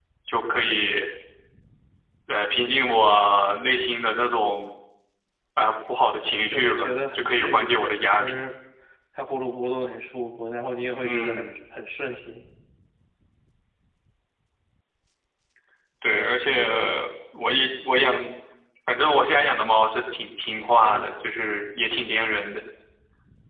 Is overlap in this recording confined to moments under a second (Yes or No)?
No